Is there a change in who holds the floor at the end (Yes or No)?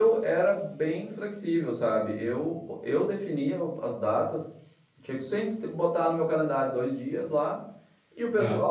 No